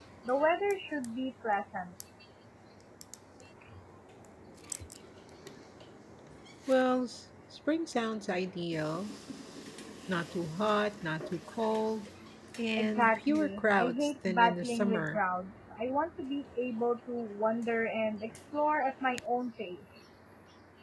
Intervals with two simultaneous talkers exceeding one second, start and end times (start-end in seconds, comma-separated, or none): 12.8-15.2